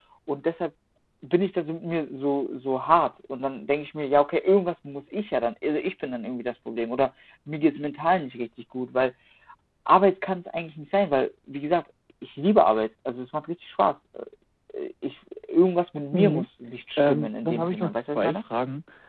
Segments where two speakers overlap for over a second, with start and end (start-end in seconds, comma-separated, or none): 17.0-18.4